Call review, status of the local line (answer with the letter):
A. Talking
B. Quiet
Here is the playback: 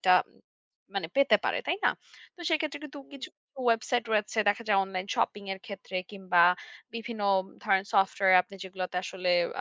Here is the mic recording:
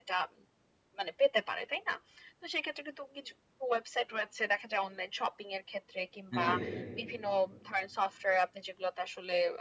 A